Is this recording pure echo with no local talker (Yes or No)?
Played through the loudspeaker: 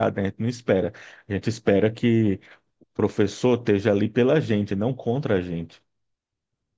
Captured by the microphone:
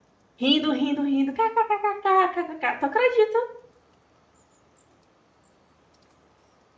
No